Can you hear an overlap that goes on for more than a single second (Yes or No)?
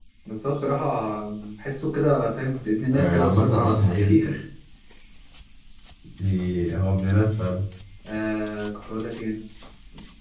Yes